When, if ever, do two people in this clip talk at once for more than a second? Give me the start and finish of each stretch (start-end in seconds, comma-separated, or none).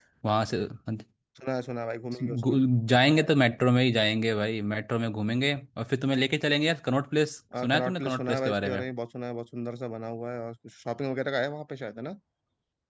7.6-8.8